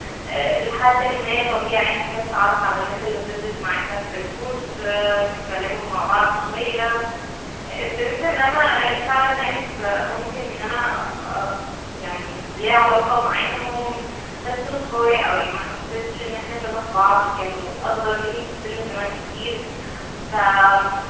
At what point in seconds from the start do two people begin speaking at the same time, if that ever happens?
none

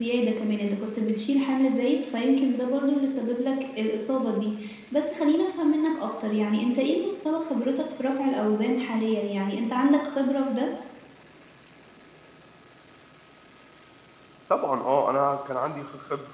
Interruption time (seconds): none

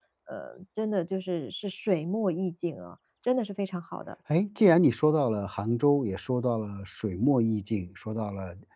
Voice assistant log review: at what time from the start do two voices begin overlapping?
none

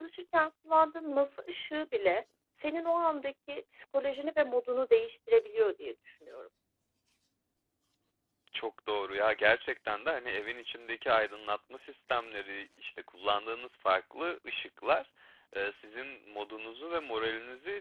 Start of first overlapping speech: none

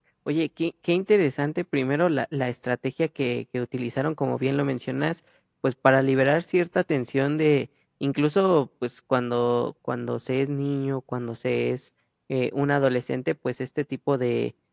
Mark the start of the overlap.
none

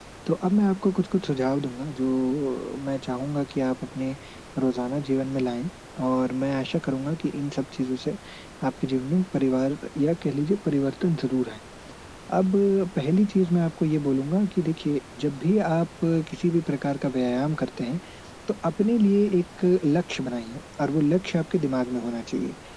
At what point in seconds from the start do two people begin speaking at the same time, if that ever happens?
none

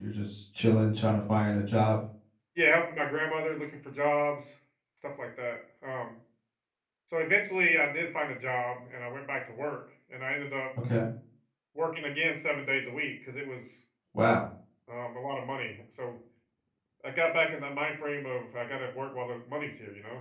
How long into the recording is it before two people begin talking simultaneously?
none

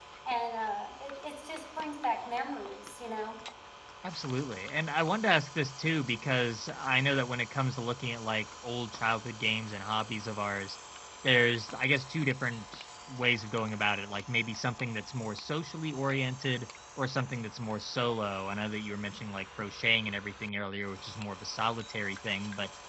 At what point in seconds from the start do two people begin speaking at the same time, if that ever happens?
none

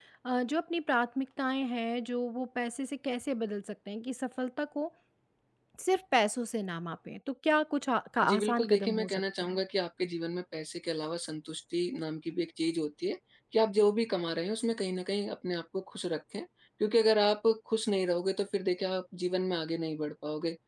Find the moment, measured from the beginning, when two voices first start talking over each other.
8.2 s

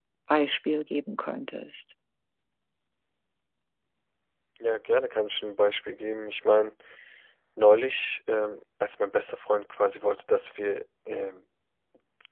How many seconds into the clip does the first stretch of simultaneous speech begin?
none

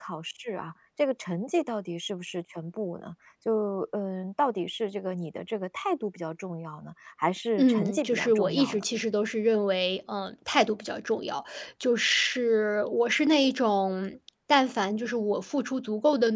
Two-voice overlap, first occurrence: 7.6 s

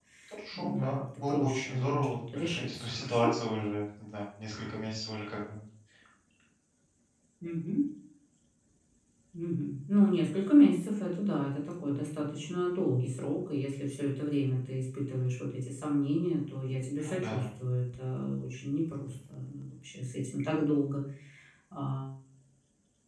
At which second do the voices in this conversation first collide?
0.5 s

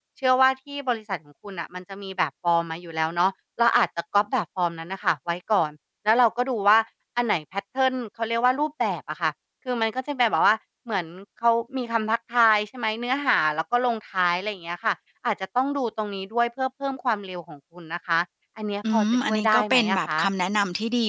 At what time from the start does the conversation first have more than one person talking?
18.9 s

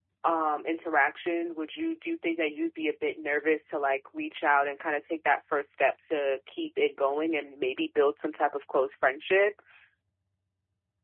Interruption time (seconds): none

